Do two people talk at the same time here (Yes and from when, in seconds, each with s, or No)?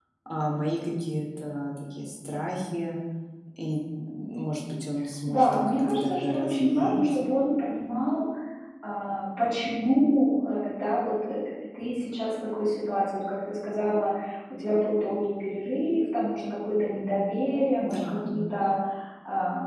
Yes, from 5.3 s